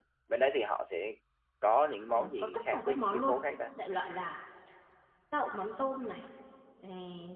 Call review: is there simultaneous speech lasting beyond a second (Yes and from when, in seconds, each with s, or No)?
Yes, from 2.1 s